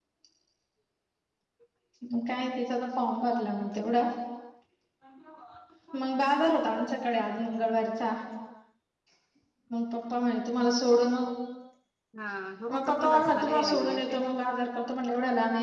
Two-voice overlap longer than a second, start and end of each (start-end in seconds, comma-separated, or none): 12.9-14.1